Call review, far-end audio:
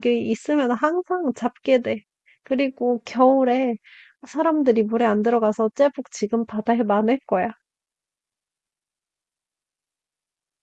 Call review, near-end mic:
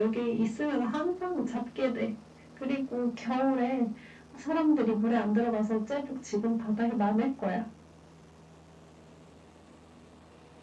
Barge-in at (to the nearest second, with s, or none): none